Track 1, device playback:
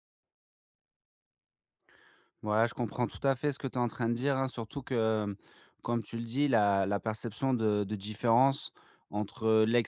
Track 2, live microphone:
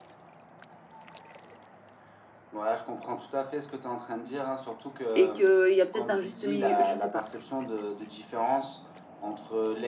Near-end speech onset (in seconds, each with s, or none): 5.1 s